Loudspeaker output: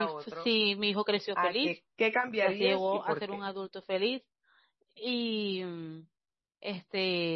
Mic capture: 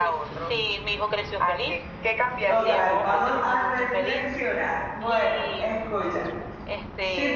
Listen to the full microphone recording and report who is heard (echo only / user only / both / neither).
both